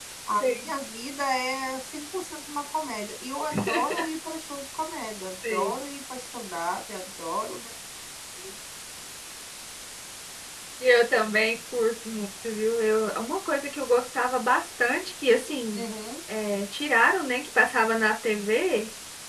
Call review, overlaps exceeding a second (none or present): none